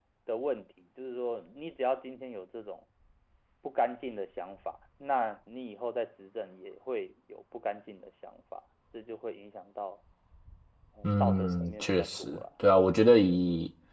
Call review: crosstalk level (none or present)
present